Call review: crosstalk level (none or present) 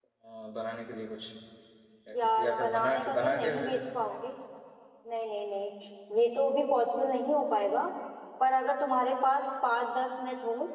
present